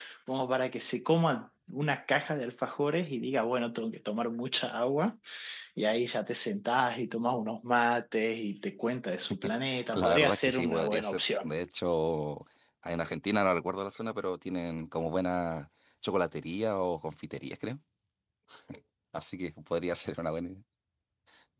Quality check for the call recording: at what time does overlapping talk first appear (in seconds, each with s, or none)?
9.9 s